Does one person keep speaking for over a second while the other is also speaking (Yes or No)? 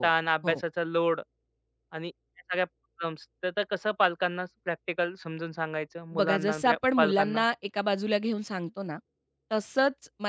Yes